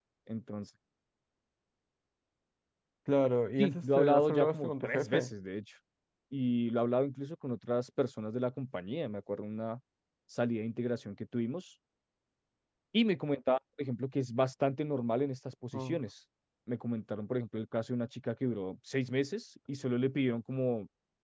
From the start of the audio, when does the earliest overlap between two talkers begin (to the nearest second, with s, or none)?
4 s